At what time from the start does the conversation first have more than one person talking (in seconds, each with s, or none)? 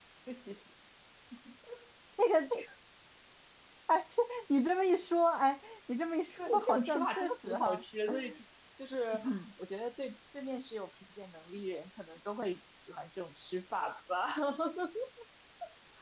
6.4 s